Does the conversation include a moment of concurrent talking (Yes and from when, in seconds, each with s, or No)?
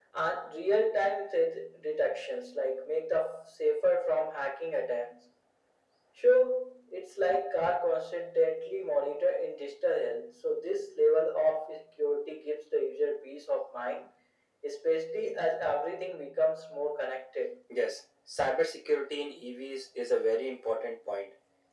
No